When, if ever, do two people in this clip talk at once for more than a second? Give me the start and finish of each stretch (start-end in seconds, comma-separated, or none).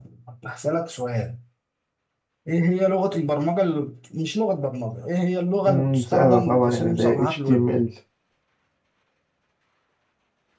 5.7-7.7